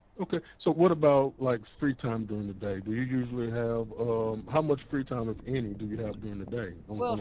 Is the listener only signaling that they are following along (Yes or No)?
No